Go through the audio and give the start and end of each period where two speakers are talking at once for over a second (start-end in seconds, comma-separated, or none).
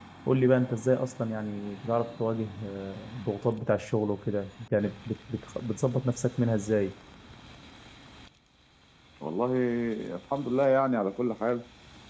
none